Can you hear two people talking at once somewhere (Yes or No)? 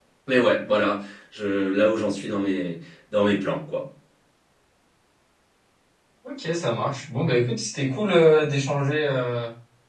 No